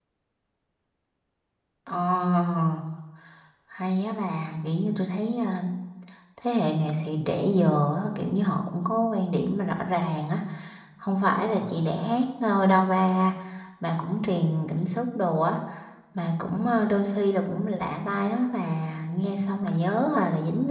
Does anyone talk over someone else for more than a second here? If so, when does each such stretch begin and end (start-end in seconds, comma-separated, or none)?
none